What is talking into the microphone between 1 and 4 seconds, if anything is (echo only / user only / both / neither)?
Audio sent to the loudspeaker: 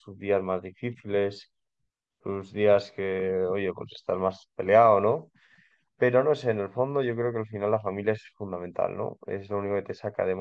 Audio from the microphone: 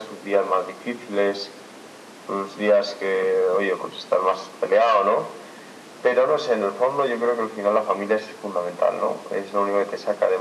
echo only